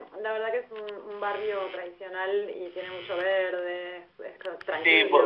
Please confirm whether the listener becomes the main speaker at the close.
Yes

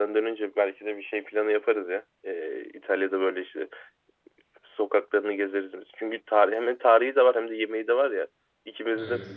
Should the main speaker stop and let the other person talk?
No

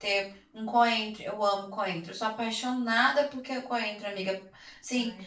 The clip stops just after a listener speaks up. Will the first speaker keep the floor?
Yes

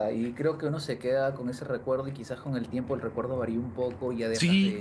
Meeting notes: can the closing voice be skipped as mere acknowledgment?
No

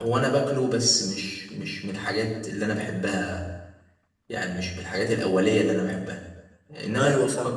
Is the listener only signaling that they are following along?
Yes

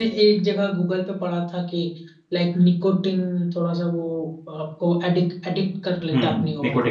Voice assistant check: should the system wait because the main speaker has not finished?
No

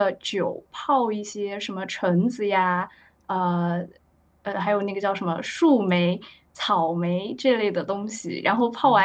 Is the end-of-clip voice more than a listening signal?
No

